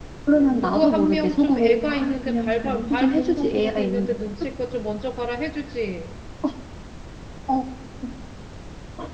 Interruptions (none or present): present